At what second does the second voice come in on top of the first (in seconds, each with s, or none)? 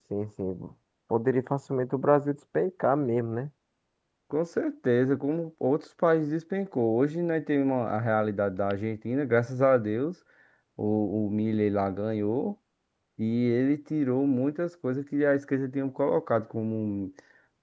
none